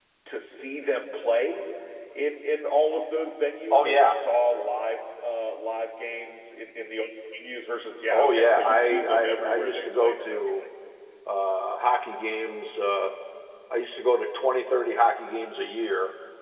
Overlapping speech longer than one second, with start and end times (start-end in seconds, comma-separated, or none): 8.1-10.6